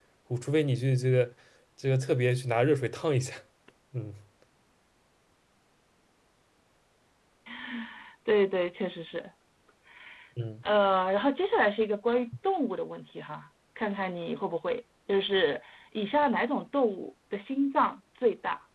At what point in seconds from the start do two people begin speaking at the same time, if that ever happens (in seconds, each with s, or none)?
none